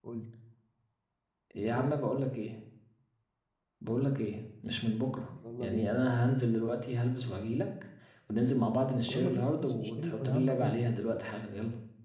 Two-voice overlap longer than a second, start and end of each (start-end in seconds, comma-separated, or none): 9.1-10.9